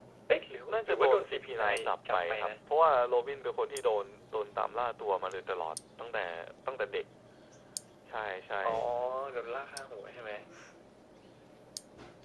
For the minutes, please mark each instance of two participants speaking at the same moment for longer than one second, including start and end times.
0.7-2.5

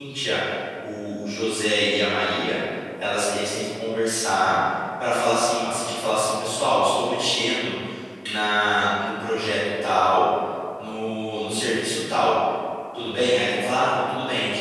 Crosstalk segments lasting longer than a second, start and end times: none

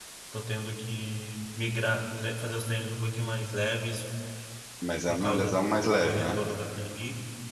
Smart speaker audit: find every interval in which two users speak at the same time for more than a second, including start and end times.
none

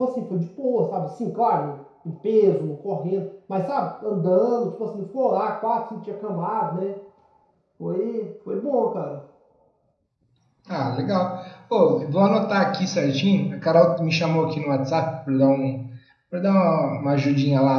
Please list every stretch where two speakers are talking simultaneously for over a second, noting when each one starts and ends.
none

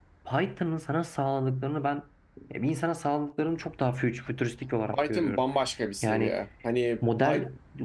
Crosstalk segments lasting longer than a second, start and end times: none

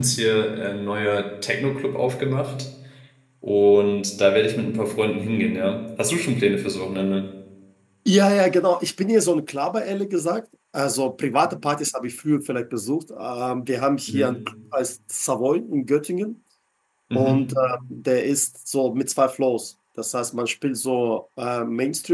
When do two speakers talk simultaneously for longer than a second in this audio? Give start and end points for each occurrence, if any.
none

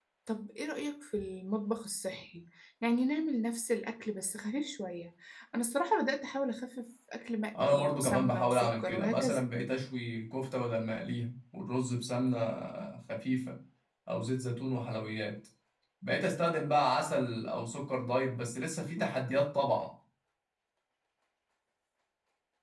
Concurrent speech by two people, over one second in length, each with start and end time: 7.6-9.4

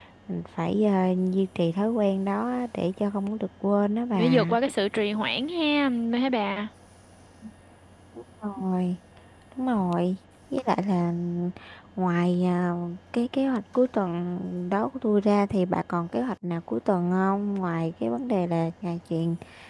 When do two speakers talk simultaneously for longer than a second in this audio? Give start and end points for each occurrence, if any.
none

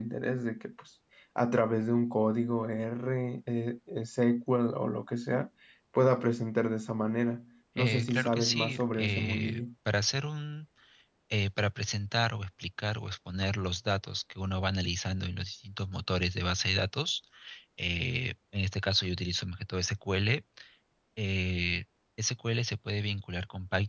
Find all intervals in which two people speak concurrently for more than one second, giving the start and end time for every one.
7.8-9.6

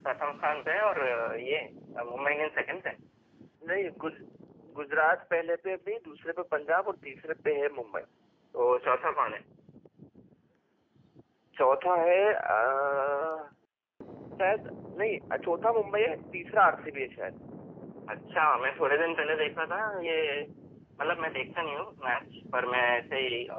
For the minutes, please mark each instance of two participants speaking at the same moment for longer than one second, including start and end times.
none

